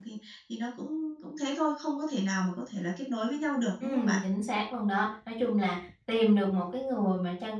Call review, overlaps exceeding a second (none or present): none